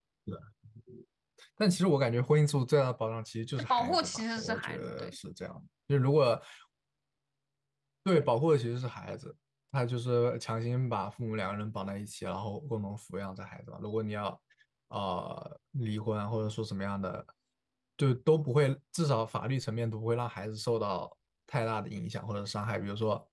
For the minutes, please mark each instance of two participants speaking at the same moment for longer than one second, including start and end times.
3.6-5.2

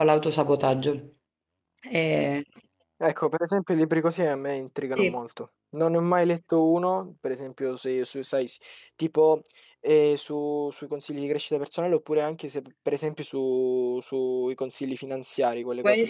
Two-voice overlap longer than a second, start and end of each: none

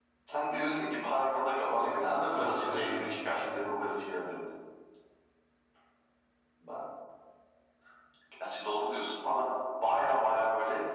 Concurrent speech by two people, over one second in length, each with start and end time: 1.7-3.6

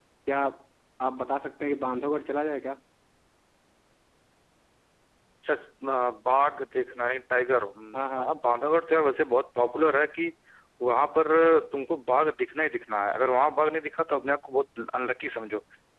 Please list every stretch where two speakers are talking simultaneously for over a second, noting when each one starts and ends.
none

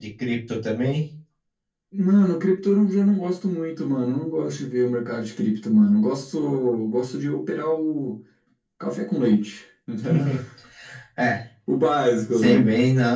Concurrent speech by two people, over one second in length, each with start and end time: none

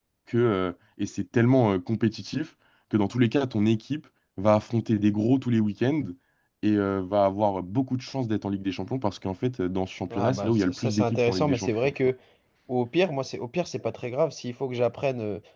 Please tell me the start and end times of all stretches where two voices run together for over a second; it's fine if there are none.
10.2-11.9

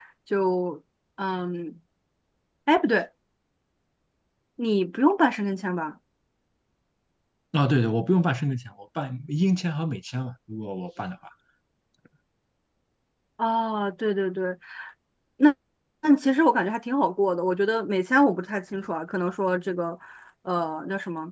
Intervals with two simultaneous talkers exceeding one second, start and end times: none

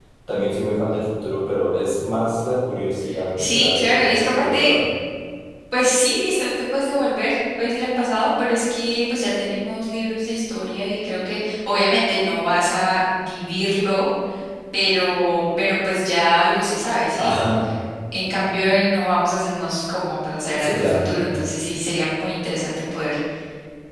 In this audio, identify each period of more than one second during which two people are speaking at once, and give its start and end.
3.4-4.7

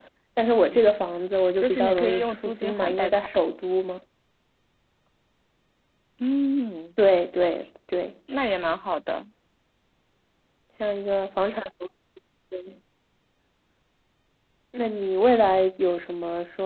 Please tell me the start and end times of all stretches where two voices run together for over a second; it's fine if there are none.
1.6-3.3

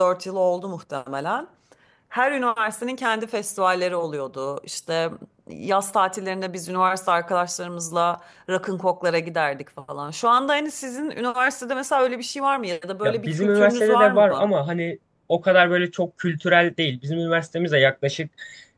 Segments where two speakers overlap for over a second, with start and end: 13.0-14.5

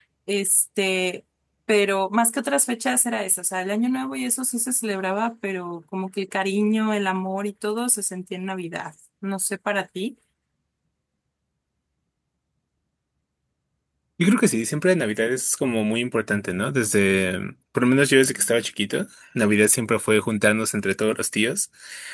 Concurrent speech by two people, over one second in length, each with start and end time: none

